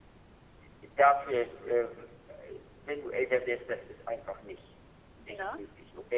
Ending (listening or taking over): listening